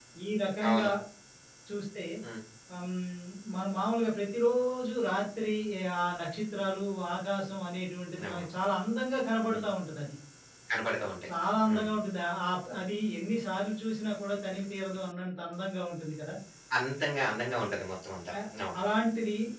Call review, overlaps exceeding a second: none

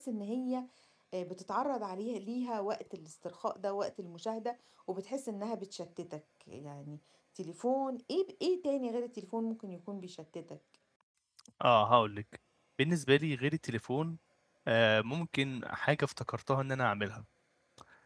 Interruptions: none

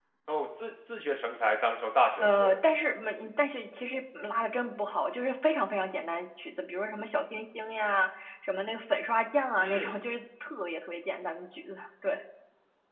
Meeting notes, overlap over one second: none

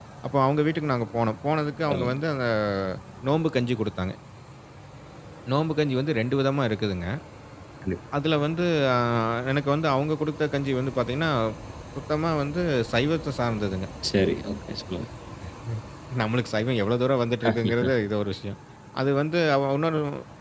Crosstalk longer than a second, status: none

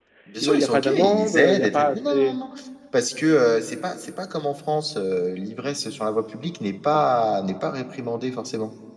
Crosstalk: present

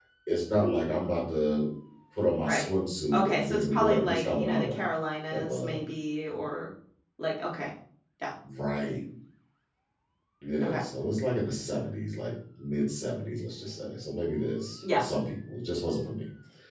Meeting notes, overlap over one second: present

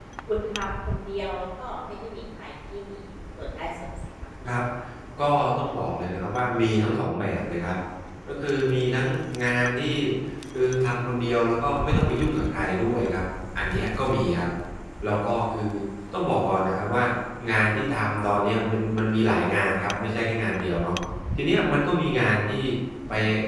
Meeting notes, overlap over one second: none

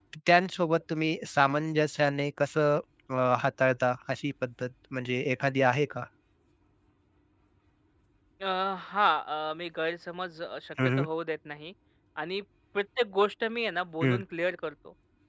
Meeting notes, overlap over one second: none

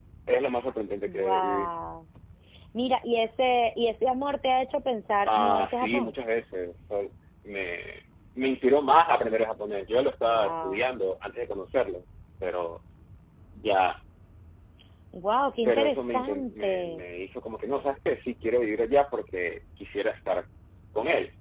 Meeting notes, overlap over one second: present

